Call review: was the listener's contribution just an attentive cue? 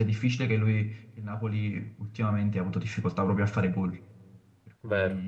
No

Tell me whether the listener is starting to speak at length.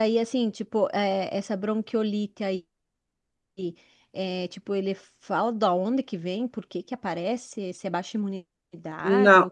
Yes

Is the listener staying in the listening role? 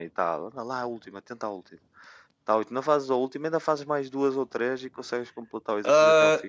No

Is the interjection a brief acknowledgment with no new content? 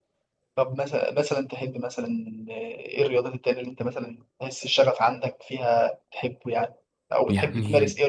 Yes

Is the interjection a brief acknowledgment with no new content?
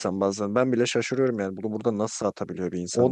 No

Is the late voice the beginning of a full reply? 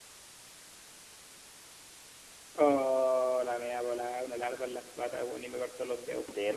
No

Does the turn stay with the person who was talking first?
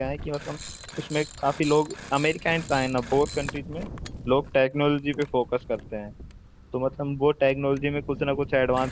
Yes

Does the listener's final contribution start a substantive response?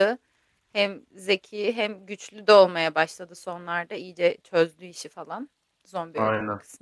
No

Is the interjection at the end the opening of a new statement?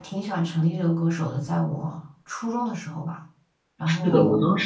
Yes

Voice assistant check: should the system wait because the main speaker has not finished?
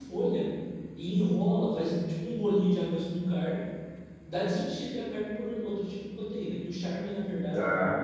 Yes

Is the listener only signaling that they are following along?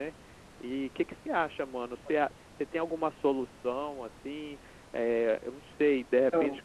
Yes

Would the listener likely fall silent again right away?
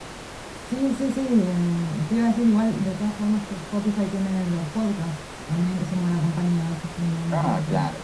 No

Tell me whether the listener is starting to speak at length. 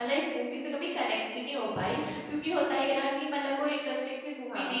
No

